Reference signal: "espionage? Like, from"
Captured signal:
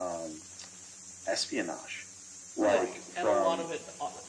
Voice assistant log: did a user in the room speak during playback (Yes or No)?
Yes